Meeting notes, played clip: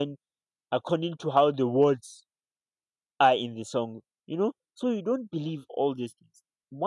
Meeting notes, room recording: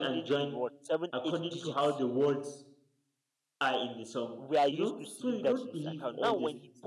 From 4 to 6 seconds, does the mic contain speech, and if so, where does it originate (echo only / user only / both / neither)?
both